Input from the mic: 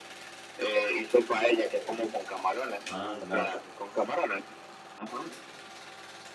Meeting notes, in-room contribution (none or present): present